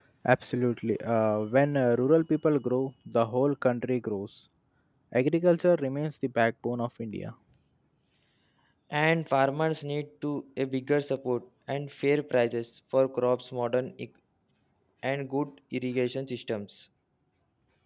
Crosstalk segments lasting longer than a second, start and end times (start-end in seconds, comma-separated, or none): none